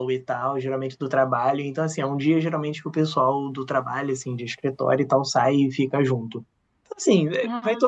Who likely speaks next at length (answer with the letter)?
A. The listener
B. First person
B